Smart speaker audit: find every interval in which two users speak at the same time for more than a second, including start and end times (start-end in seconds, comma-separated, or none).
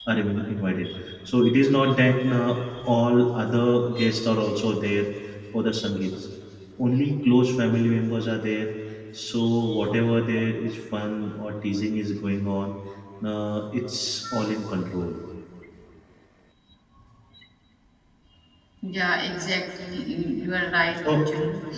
none